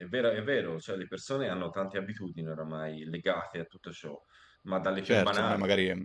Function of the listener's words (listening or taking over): taking over